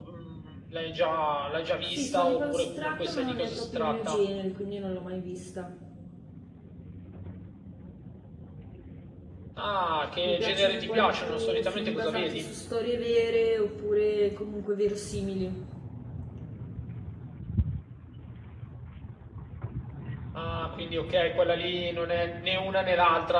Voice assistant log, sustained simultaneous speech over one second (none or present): present